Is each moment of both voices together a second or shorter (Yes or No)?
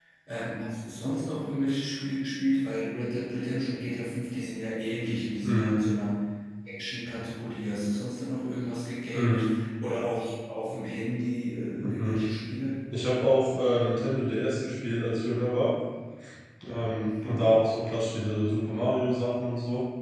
Yes